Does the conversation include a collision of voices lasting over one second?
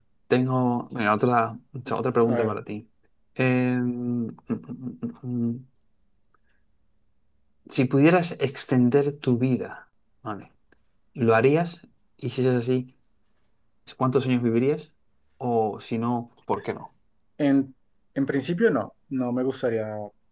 No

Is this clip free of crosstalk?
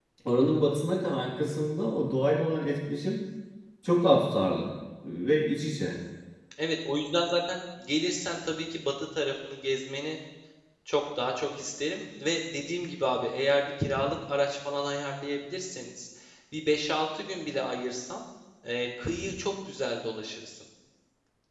Yes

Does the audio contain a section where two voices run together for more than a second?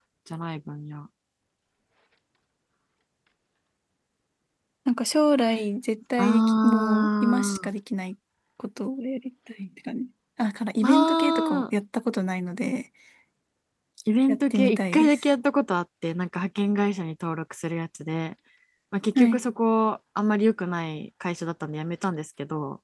Yes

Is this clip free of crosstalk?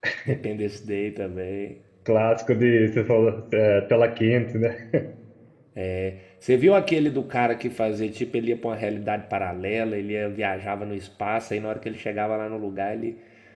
Yes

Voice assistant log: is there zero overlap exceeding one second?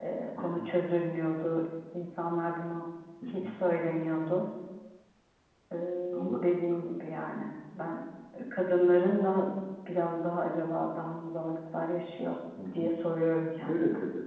Yes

